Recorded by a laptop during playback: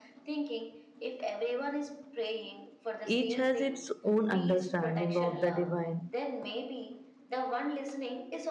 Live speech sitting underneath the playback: No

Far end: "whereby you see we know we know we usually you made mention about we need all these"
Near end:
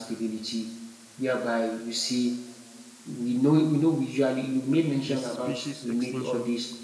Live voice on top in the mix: No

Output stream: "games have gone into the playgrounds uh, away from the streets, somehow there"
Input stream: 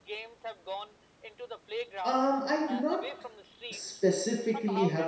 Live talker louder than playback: Yes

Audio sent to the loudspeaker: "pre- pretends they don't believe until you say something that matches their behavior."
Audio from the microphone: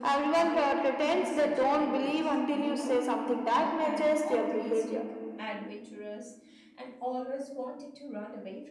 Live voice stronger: No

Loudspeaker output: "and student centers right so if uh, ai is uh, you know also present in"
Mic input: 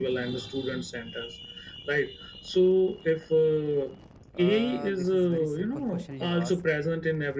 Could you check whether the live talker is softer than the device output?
Yes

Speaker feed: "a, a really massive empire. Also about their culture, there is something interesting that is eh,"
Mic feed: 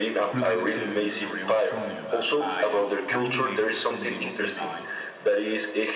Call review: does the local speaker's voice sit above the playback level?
No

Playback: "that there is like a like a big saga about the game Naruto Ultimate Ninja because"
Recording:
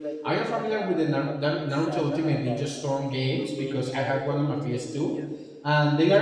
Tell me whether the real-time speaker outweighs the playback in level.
Yes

